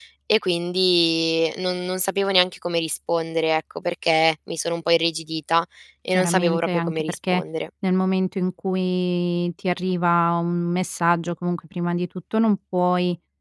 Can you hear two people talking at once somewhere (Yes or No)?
Yes